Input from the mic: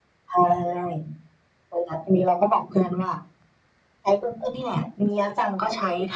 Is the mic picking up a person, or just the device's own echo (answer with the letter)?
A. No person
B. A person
A